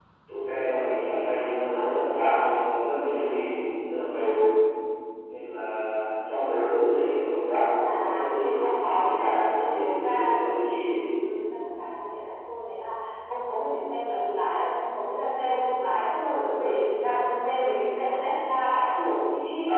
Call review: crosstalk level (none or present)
present